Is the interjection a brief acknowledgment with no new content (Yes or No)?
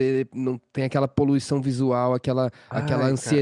Yes